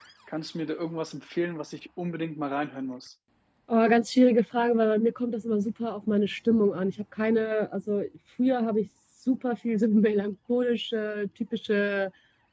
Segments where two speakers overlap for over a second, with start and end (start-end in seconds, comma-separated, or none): none